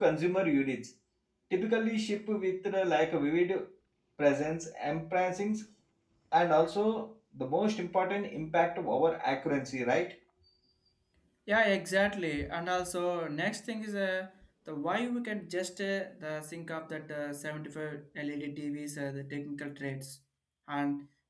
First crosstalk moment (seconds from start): none

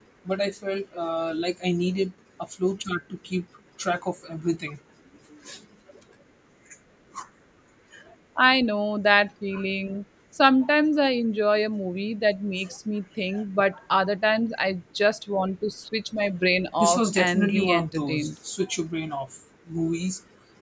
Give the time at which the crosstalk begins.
17 s

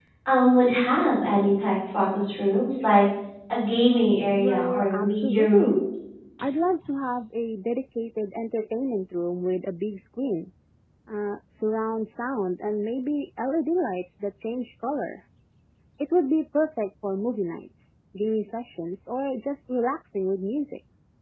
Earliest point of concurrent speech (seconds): 4 s

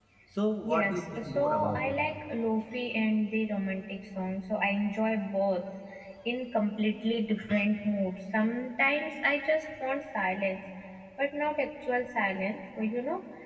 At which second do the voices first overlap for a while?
1 s

